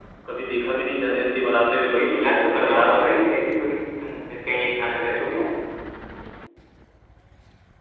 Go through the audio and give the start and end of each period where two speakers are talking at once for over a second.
1.9-3.1

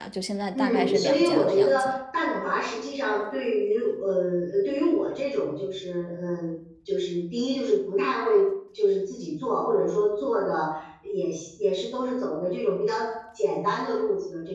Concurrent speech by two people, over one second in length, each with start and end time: 0.6-2.0

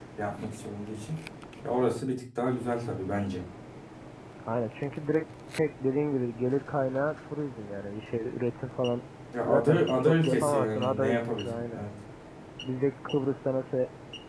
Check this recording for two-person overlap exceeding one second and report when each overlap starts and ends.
9.5-11.8

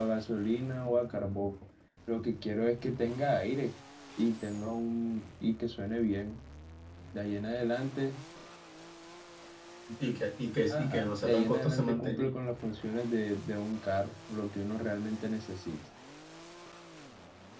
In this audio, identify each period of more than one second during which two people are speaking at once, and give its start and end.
10.7-12.3

